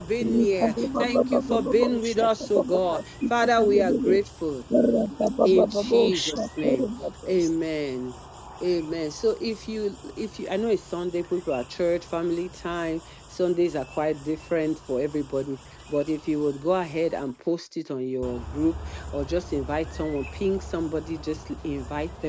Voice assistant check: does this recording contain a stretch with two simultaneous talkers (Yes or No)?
Yes